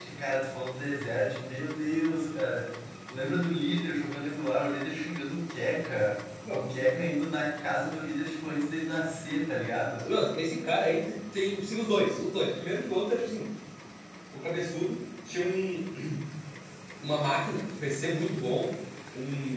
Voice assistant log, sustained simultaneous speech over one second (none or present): none